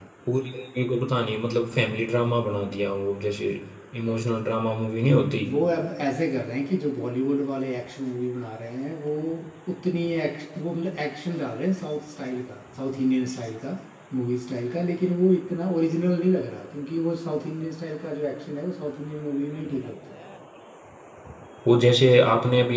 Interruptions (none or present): none